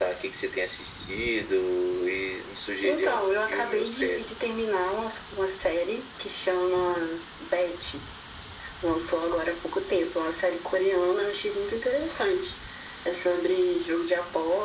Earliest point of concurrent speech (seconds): 2.8 s

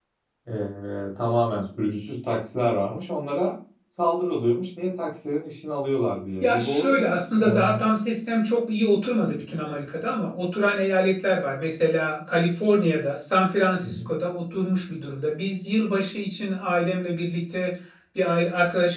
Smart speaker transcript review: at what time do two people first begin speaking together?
6.4 s

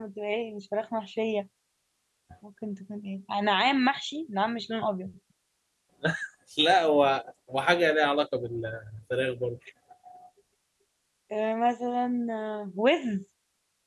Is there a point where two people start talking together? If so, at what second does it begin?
none

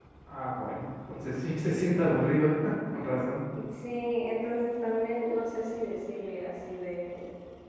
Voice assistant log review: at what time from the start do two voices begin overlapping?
none

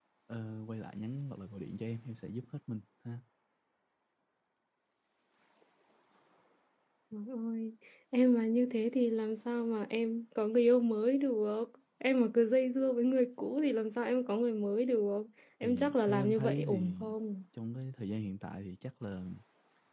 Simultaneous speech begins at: 15.6 s

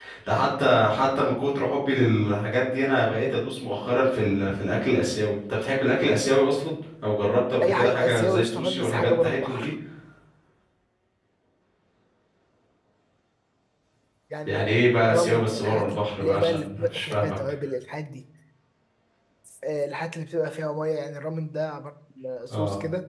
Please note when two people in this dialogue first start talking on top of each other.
7.6 s

